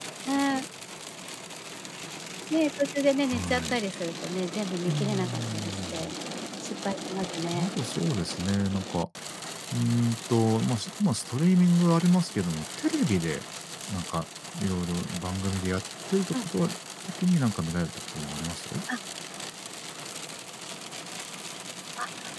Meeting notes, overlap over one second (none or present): present